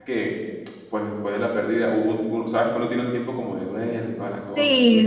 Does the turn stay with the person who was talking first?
No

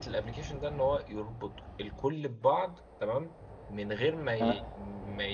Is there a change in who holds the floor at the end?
No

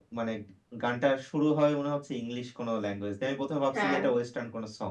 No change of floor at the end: Yes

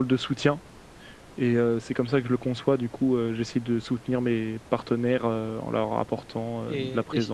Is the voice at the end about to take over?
Yes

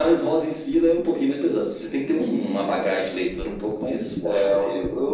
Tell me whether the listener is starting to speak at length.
Yes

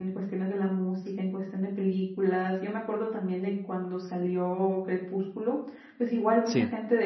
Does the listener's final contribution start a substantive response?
No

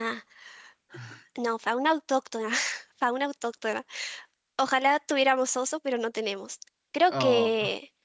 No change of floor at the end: Yes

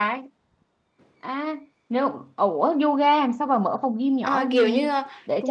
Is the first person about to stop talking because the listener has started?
Yes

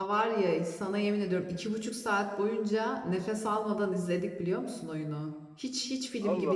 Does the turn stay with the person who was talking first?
Yes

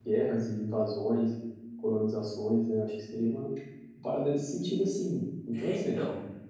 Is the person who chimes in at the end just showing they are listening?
No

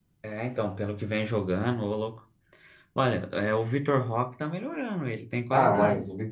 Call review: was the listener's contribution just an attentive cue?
No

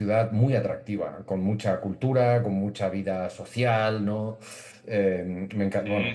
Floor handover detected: No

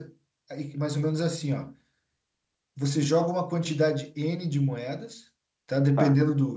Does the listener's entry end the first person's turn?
No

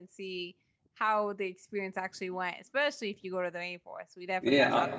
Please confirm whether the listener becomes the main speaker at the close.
Yes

